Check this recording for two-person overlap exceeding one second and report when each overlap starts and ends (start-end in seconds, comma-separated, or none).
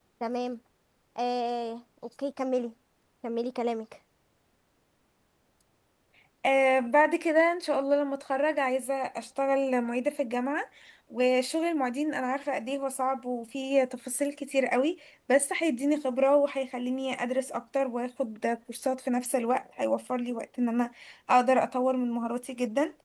none